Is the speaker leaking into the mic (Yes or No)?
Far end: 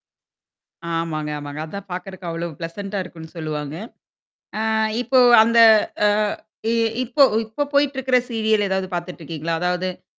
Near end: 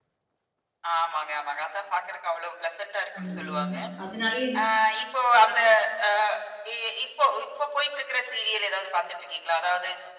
Yes